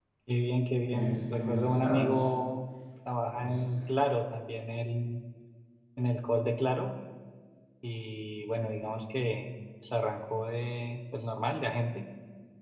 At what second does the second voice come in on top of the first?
0.9 s

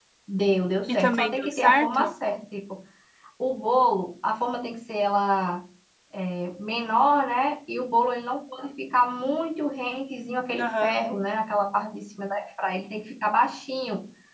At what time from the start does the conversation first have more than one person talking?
0.9 s

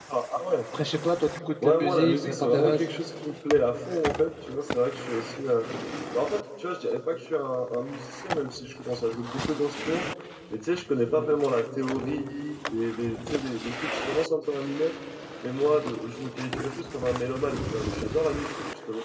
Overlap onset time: 1.6 s

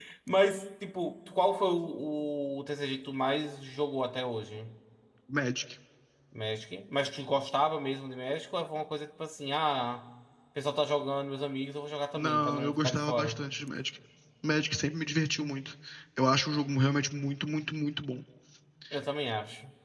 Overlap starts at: 12.1 s

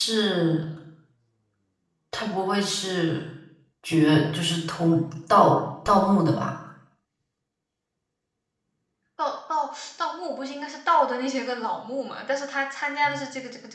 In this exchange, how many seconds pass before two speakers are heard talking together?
none

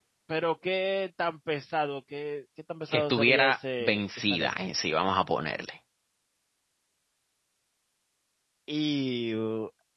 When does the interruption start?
2.9 s

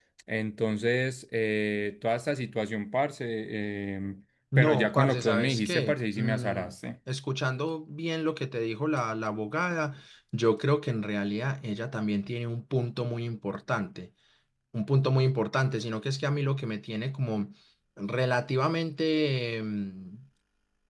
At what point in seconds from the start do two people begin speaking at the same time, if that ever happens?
4.5 s

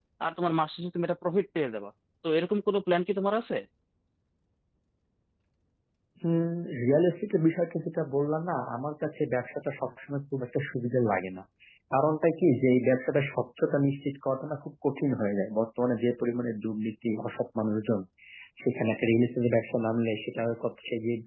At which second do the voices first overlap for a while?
none

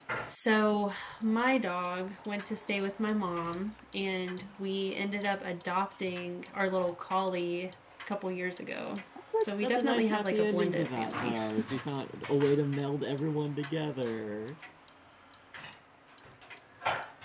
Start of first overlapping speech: 9.3 s

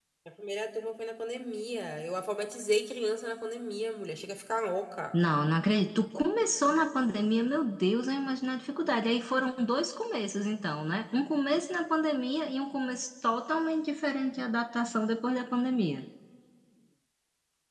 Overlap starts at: none

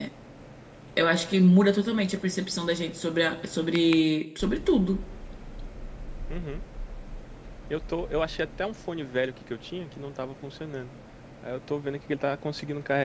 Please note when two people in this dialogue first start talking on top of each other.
none

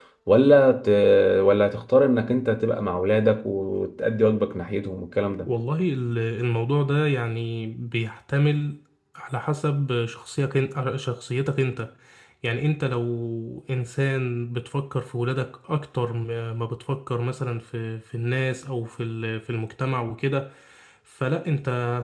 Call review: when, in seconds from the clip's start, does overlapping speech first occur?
none

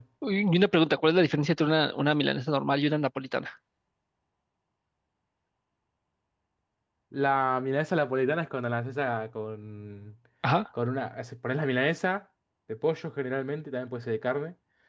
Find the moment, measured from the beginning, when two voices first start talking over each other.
none

